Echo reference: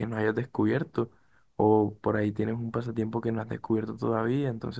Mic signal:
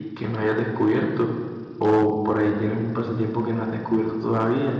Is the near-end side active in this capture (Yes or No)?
No